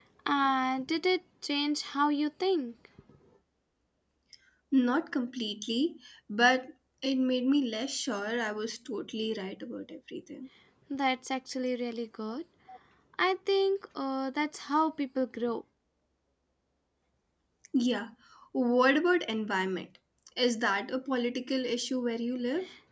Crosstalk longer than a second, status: none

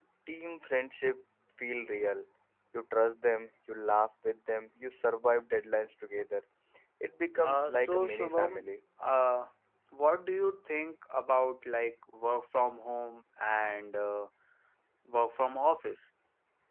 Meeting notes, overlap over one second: present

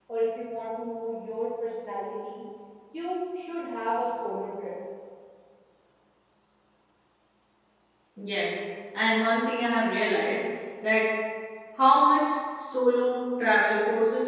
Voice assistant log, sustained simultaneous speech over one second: none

